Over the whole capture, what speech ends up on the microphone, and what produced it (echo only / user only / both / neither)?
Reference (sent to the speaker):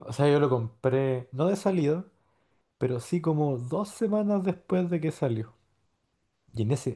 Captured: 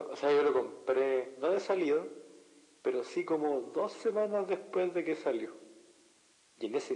echo only